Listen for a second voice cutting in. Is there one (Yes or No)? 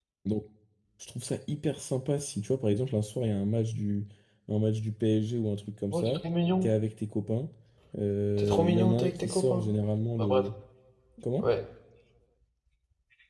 Yes